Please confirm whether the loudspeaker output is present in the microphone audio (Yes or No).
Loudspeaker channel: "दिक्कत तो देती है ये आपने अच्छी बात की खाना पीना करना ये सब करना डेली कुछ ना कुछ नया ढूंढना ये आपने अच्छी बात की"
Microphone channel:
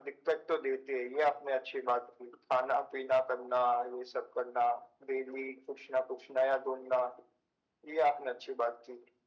Yes